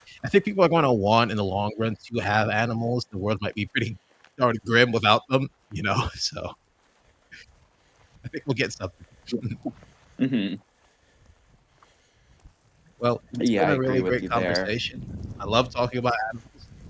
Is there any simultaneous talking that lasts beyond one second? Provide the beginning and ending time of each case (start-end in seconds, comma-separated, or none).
13.4-14.7